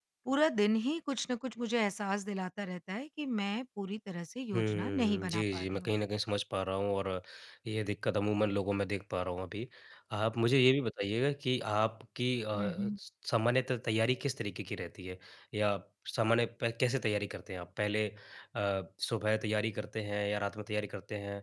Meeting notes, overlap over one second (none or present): present